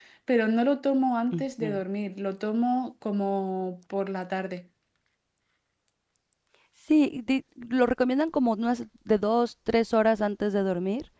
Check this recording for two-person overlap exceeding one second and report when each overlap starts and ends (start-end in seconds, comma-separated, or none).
none